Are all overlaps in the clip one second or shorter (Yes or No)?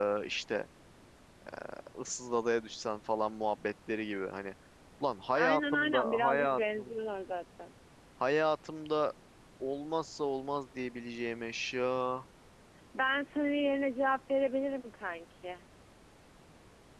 No